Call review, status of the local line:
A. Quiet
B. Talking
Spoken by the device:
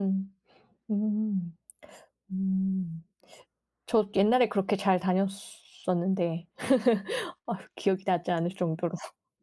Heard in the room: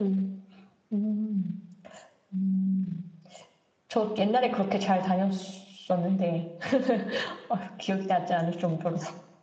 A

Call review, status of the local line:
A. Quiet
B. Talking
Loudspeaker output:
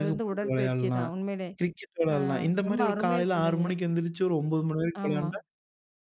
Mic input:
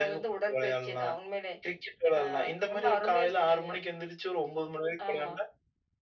A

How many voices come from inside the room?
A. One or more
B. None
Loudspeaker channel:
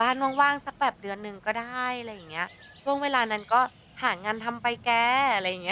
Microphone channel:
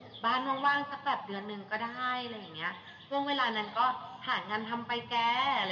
B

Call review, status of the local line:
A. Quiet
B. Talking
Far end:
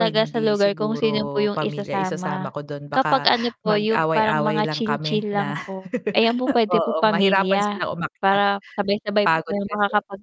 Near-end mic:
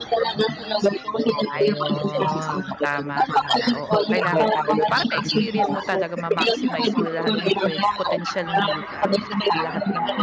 B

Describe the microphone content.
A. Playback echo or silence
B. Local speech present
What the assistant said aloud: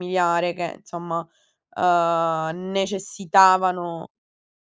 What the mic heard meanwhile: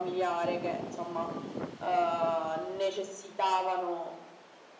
A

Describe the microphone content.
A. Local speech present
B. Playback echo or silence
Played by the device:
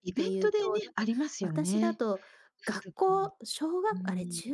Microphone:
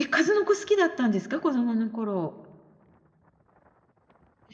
A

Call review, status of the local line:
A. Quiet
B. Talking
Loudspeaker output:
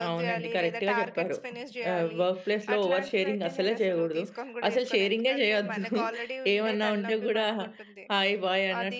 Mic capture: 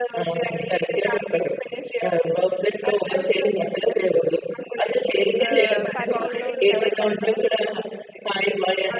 B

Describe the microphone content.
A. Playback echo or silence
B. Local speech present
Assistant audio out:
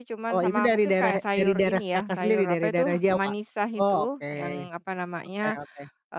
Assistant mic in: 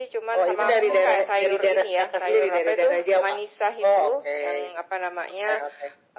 B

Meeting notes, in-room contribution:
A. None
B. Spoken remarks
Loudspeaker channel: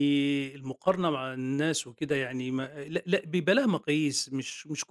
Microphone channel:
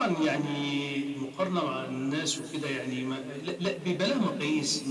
A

